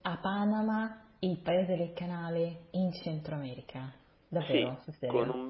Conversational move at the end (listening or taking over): taking over